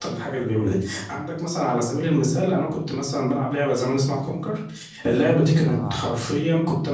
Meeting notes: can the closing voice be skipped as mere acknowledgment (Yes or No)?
Yes